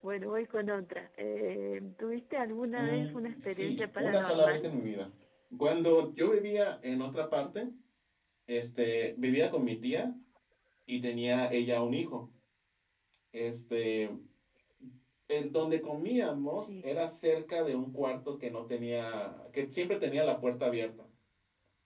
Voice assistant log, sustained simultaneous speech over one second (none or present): present